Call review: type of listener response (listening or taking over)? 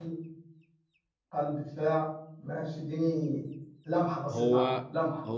taking over